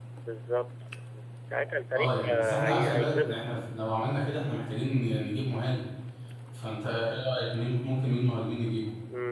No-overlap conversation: No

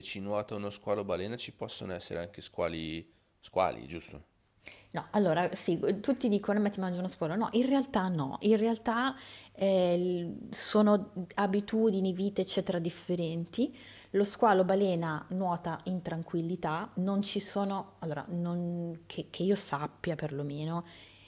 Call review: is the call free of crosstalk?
Yes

